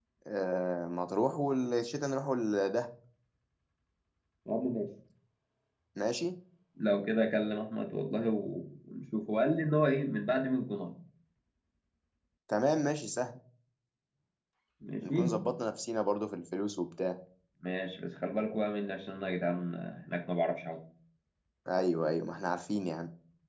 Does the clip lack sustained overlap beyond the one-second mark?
Yes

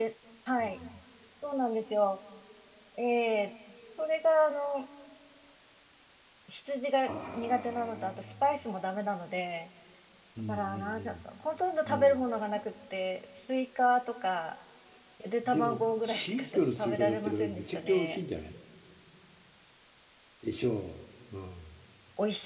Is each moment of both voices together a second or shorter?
No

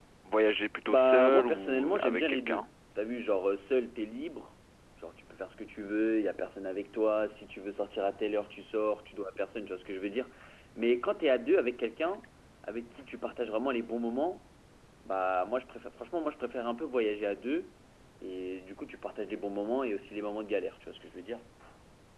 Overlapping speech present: Yes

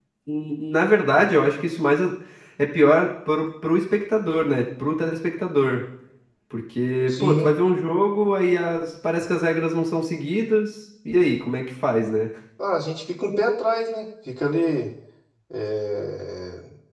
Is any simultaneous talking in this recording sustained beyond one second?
No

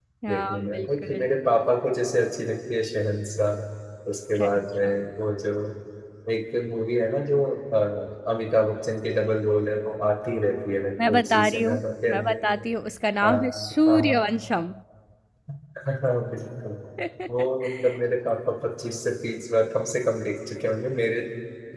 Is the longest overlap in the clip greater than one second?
Yes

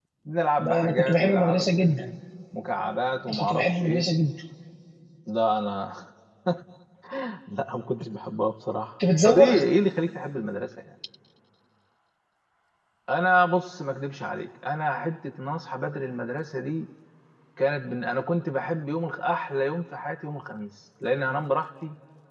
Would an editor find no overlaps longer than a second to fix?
No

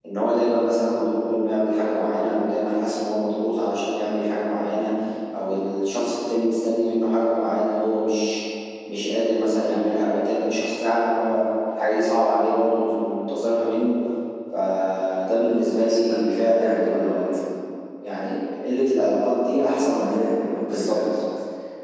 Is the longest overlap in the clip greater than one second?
Yes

